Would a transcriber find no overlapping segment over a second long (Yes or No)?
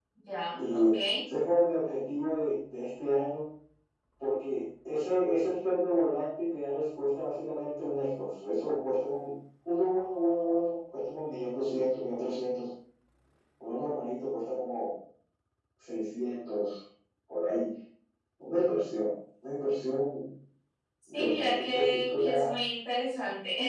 No